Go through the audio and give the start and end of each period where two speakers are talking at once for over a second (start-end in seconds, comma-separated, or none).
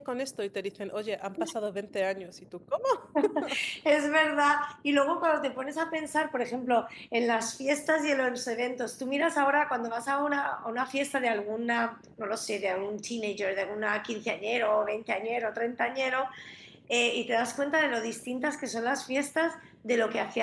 none